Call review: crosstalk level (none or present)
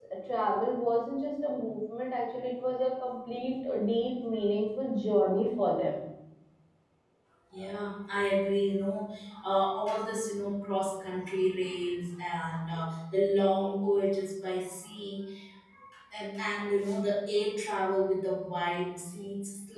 none